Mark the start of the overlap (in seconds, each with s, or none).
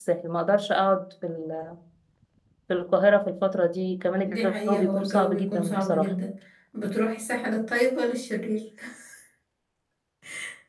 4.2 s